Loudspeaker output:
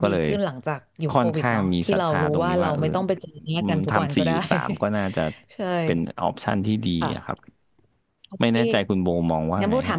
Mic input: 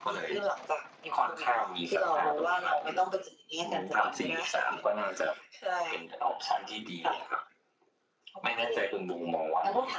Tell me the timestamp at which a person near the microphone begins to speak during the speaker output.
none

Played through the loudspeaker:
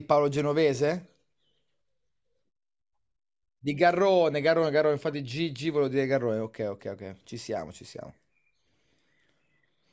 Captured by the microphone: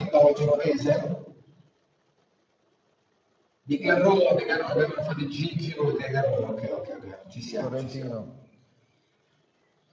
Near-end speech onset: 7.5 s

